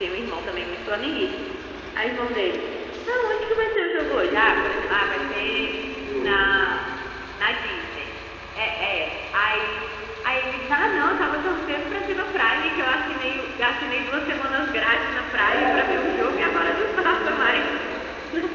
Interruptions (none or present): present